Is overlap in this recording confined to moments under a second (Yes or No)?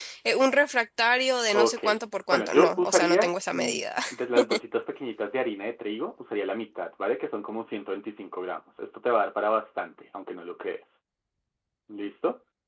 No